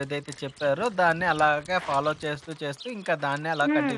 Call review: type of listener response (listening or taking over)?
taking over